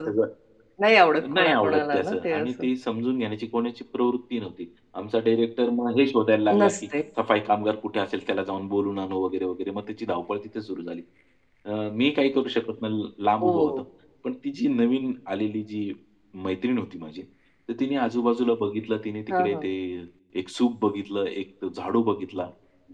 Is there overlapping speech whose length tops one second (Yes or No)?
Yes